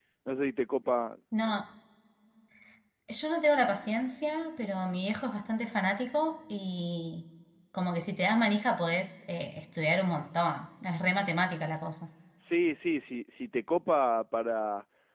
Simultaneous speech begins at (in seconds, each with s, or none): none